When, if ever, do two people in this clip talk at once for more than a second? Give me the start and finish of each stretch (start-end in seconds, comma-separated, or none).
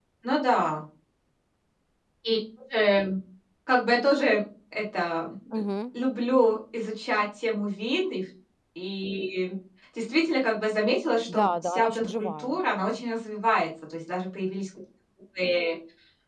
11.3-13.0